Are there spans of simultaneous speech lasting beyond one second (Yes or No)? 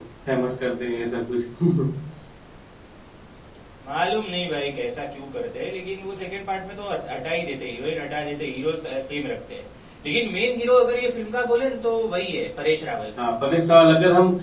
No